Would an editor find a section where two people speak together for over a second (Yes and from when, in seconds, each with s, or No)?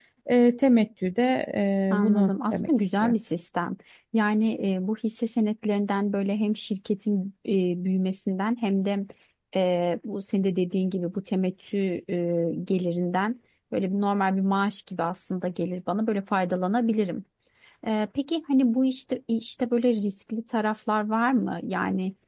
Yes, from 1.9 s